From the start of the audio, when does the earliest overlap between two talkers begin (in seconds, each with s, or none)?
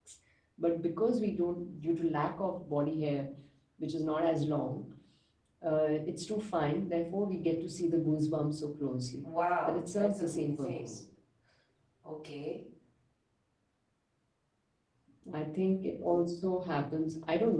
9.7 s